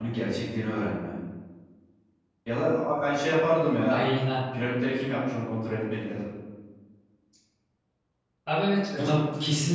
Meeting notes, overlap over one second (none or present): none